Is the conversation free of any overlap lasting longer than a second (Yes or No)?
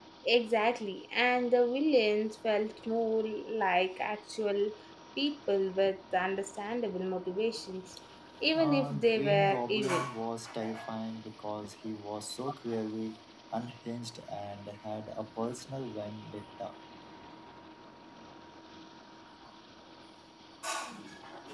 No